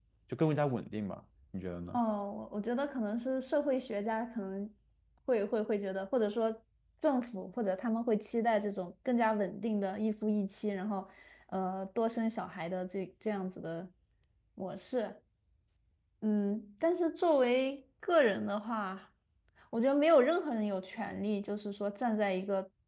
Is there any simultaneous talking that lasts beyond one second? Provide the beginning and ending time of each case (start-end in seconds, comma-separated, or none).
none